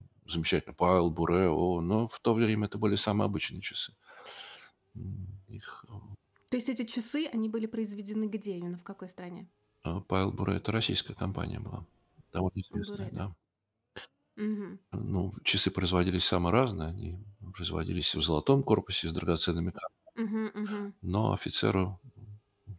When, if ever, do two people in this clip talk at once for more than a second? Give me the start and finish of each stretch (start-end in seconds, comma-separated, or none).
none